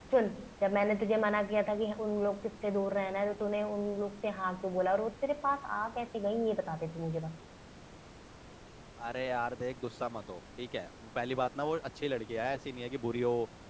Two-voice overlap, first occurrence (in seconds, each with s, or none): none